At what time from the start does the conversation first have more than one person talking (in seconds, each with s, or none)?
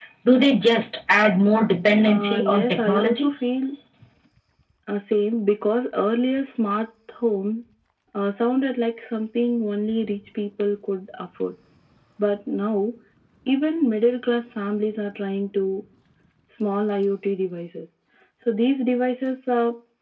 2.1 s